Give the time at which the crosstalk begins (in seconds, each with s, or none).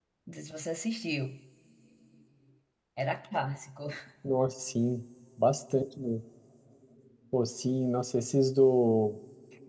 none